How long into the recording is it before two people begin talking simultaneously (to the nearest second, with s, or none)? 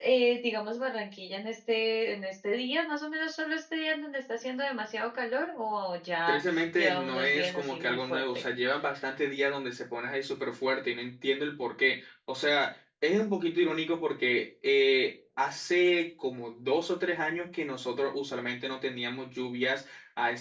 6 s